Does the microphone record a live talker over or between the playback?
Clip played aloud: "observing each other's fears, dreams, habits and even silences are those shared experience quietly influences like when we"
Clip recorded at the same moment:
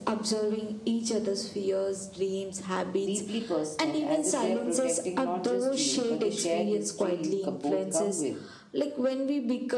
Yes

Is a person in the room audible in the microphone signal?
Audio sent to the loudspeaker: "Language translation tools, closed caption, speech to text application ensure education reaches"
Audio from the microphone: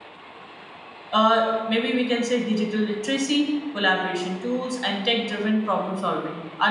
Yes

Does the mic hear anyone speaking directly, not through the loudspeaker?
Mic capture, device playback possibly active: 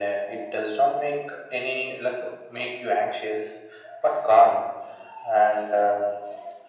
No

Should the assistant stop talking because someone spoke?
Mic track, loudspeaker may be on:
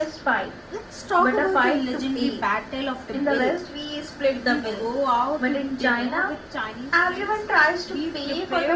Yes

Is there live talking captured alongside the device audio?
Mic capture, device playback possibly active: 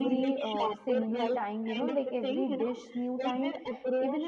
Yes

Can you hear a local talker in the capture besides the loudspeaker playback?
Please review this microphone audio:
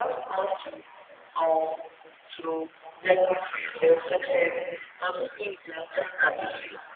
No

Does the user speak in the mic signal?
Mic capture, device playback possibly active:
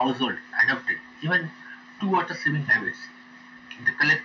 No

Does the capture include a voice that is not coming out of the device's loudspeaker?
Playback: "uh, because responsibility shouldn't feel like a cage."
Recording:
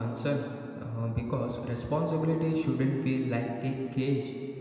No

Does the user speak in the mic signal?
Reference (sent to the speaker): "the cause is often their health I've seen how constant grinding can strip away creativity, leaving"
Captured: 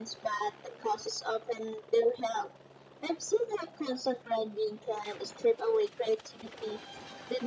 No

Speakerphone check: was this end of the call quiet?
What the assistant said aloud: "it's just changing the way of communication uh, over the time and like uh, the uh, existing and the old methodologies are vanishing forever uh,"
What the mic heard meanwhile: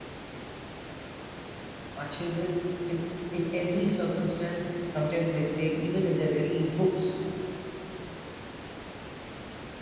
No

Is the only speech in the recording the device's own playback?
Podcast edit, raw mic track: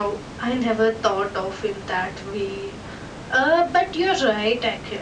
Yes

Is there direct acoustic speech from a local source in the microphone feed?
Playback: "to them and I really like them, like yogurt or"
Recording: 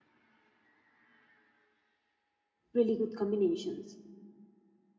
Yes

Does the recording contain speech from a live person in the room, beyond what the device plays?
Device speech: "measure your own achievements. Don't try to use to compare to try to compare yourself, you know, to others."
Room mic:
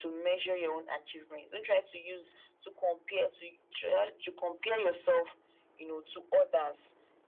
No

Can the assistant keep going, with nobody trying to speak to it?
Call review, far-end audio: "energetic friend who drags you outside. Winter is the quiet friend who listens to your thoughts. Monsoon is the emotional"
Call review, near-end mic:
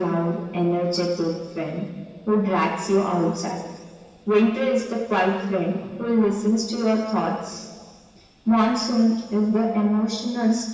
Yes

